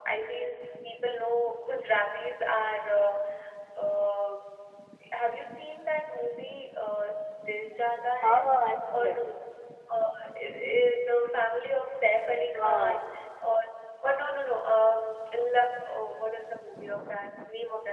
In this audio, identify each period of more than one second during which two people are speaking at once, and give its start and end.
none

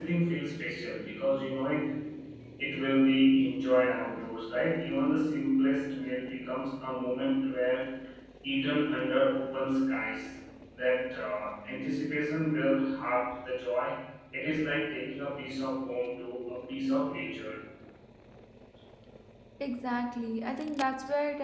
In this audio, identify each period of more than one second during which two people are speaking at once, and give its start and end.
none

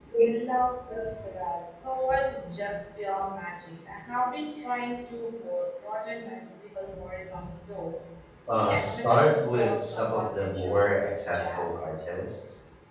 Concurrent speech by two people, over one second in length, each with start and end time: 8.5-11.7

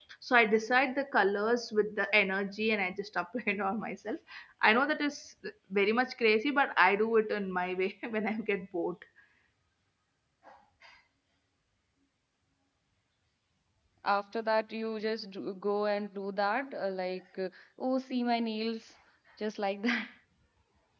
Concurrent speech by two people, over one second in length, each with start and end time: none

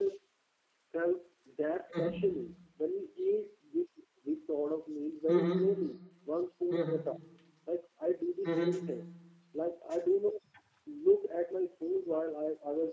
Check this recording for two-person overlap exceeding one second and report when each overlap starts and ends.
none

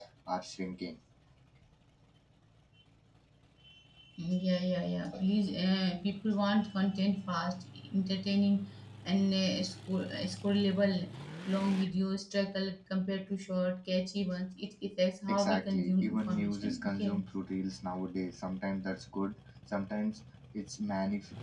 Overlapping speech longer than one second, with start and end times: 15.3-17.2

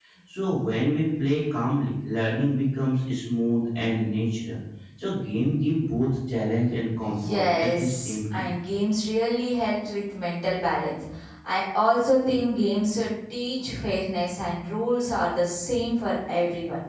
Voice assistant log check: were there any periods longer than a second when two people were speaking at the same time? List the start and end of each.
7.0-8.5

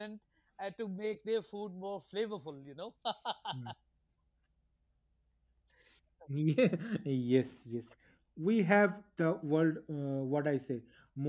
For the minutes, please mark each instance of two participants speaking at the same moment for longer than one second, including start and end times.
none

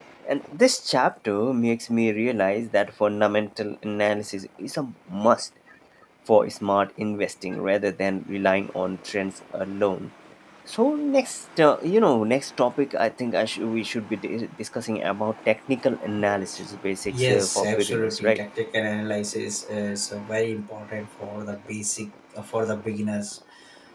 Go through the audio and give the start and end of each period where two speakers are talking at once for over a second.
17.1-18.4

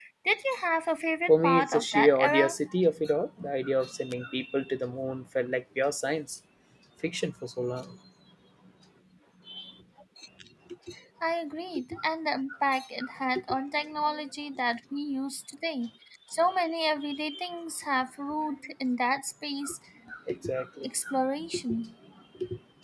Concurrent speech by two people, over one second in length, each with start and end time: 1.3-2.5

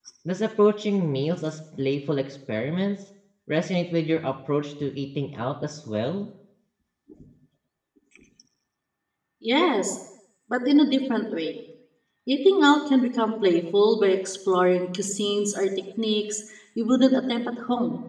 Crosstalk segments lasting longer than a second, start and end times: none

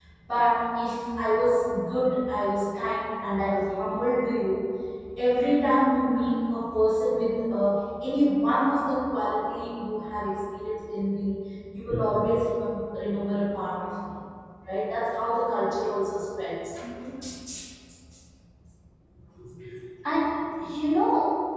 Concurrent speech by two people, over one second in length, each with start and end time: none

